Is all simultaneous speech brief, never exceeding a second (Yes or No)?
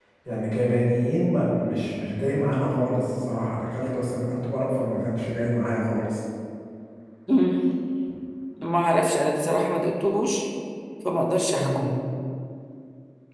Yes